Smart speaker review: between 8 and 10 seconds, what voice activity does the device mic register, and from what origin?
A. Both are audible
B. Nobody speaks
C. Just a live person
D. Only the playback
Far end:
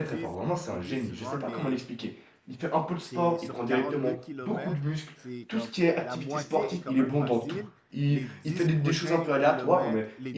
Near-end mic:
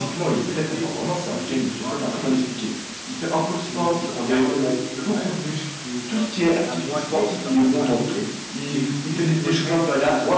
D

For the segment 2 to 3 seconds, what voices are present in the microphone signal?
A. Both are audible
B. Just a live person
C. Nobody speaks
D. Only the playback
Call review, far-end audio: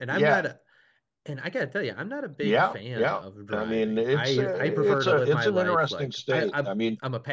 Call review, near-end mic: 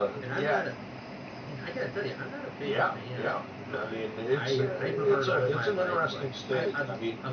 D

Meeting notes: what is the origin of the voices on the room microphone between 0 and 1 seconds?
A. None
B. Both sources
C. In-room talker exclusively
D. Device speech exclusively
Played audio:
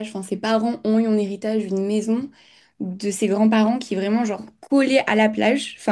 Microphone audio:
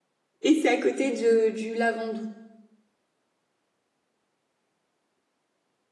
C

